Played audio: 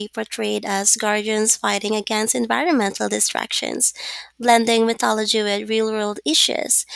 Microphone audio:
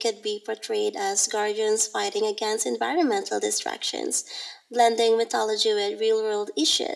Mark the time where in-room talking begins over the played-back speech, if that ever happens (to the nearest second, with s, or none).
none